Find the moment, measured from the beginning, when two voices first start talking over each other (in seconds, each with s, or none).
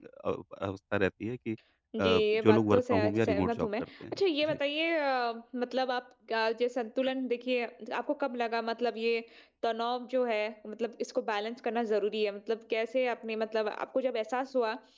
1.9 s